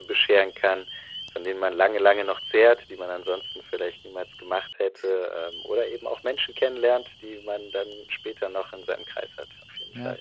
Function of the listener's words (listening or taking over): taking over